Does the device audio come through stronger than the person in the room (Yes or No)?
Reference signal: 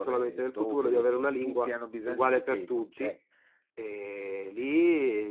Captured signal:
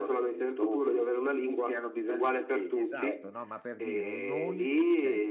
Yes